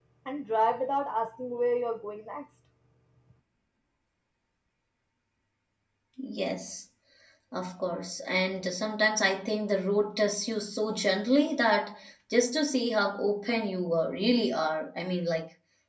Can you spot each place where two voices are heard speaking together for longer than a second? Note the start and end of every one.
none

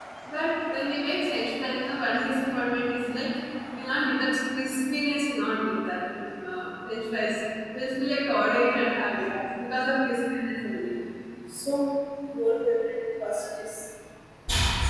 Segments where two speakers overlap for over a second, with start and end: none

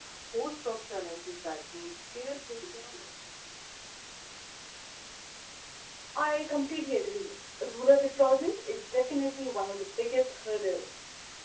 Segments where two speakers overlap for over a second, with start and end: none

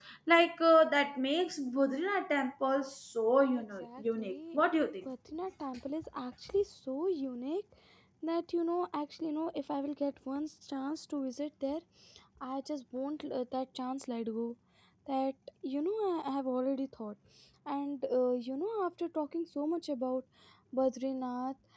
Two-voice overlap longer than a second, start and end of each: 3.4-4.6

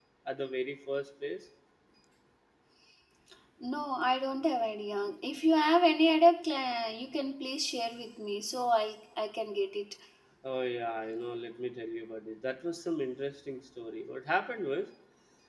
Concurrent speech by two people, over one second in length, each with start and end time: none

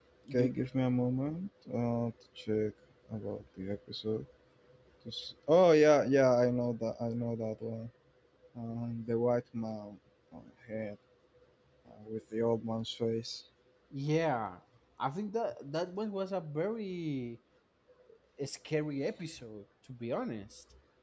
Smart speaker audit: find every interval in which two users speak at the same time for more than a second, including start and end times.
none

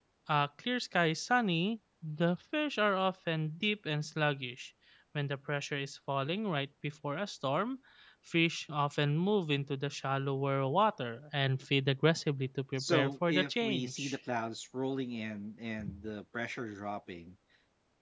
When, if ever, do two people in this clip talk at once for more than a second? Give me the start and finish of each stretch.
12.8-14.2

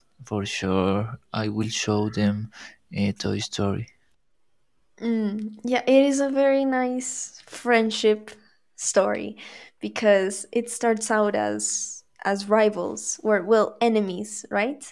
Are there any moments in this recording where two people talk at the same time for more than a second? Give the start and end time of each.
none

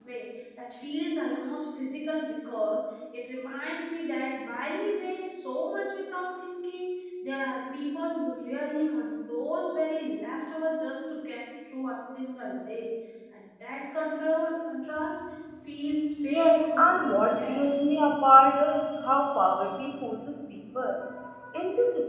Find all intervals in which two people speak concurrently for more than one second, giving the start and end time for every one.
16.2-17.6

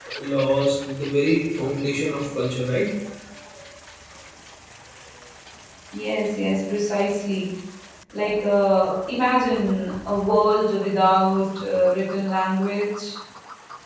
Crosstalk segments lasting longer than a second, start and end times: none

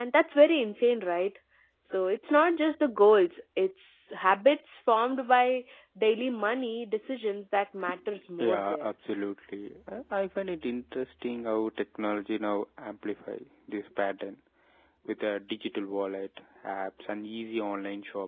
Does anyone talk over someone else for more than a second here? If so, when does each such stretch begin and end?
none

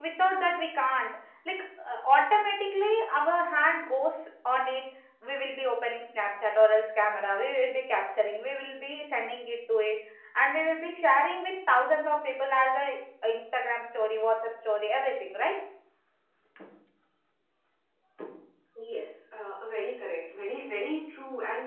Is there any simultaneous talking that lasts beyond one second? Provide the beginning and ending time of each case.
none

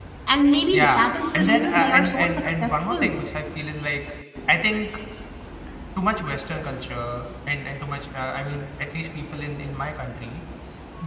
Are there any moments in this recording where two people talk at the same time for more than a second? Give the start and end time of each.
0.7-3.2

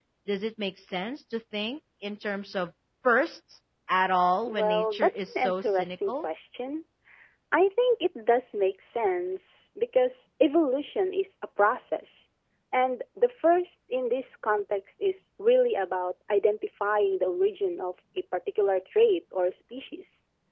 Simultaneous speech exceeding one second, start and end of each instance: 4.5-6.3

